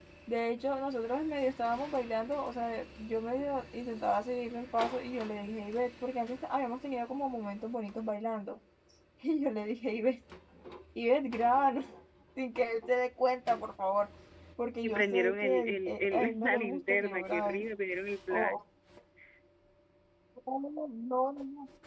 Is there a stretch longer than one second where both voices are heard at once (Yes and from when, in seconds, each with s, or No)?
Yes, from 14.8 s